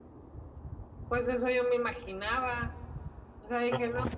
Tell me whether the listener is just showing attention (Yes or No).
Yes